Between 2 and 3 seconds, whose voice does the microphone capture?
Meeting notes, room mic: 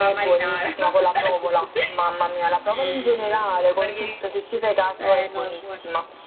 both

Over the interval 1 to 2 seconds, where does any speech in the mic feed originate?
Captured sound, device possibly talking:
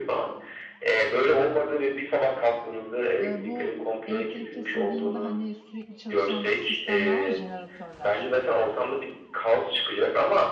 echo only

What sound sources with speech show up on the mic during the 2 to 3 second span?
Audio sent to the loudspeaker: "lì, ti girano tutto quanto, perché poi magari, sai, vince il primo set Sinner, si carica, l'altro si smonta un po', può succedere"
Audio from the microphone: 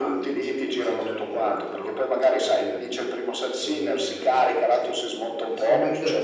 both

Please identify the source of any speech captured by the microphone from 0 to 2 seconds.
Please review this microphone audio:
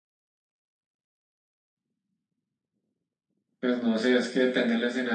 neither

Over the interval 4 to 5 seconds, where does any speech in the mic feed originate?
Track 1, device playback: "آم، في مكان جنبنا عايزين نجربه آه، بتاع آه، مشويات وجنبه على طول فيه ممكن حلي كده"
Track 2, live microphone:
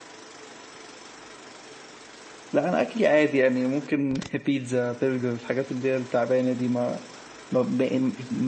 user only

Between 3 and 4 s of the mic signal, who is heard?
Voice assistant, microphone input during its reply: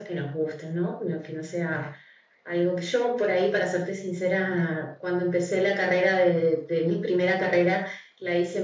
echo only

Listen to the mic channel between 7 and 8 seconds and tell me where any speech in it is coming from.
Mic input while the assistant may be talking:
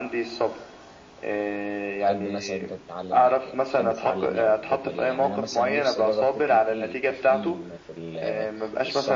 both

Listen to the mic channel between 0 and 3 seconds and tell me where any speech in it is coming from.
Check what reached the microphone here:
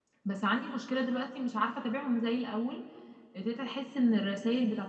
user only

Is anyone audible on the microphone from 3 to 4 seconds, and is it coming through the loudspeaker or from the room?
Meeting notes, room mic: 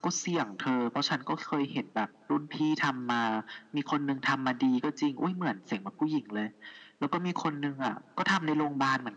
echo only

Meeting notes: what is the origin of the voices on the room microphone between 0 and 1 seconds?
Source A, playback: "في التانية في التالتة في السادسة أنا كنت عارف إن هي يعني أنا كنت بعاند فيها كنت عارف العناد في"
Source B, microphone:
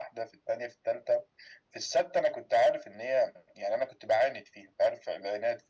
echo only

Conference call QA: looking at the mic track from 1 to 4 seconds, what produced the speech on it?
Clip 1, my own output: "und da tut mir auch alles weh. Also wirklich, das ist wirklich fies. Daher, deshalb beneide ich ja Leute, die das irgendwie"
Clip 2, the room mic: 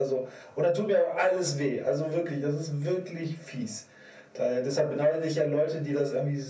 echo only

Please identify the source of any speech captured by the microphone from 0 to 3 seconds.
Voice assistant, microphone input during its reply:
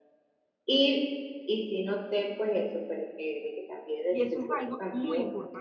echo only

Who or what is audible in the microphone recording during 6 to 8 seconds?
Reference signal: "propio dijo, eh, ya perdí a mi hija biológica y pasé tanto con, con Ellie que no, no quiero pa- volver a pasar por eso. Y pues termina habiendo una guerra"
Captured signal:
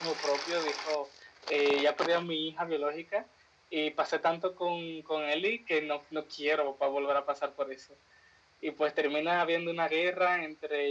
echo only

